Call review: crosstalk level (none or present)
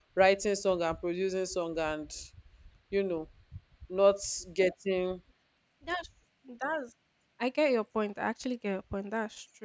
none